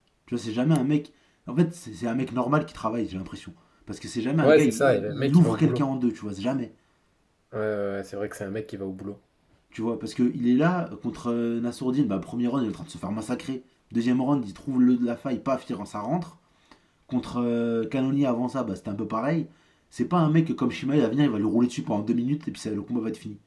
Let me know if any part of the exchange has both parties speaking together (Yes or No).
Yes